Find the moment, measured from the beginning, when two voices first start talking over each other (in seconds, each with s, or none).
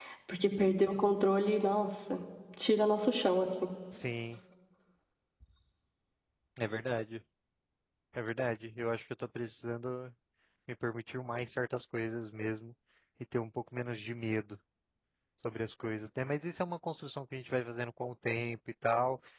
none